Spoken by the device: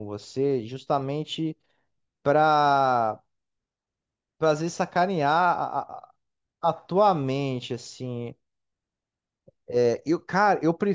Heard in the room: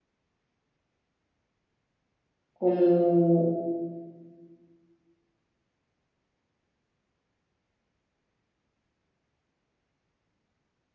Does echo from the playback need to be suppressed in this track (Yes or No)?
No